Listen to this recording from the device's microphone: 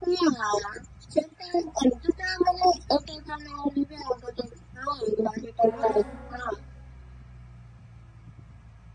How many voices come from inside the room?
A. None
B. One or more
B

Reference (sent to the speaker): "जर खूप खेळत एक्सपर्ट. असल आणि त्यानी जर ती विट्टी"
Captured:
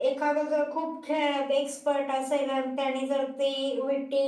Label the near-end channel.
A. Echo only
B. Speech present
A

